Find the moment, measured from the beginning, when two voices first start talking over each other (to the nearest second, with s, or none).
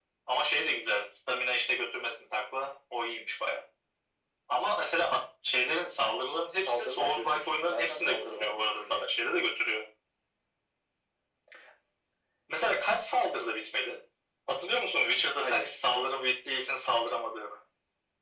7 s